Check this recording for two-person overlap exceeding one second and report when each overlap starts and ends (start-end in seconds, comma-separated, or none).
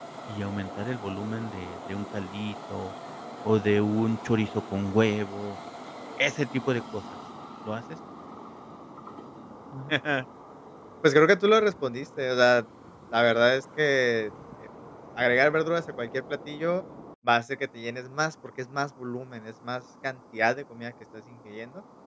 none